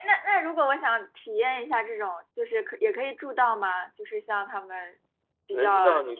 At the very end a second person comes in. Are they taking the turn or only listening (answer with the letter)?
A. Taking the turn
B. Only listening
A